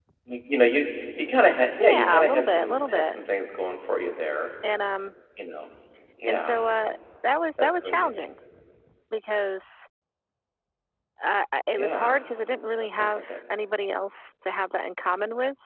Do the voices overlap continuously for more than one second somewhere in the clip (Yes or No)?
Yes